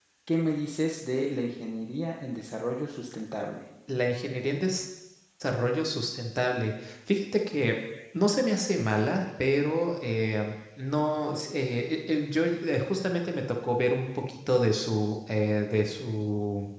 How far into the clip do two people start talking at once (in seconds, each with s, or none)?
none